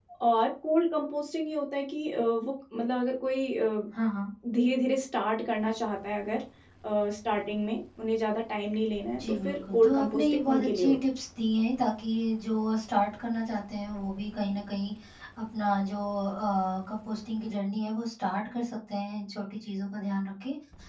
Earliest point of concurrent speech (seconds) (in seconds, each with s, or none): 9.1 s